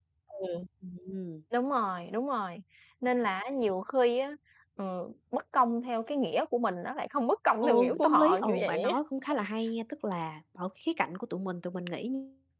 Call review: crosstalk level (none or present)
present